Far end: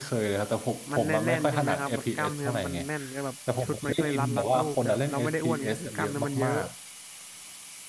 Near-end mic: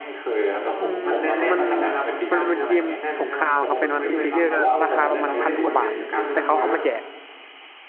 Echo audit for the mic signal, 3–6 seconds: both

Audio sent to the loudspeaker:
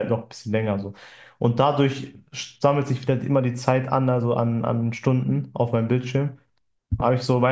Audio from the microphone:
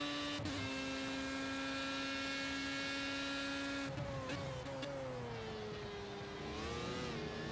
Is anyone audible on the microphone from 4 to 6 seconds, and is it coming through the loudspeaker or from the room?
neither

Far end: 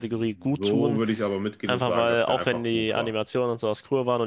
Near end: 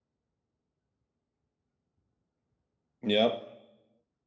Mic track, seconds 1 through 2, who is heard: neither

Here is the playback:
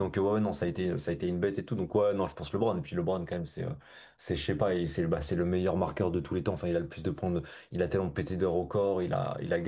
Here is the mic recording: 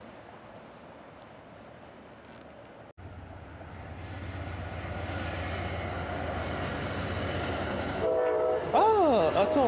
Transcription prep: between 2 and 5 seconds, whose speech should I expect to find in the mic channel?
neither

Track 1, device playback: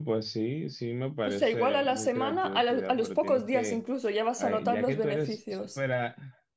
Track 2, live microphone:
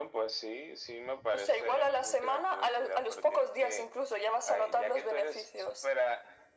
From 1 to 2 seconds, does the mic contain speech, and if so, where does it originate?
echo only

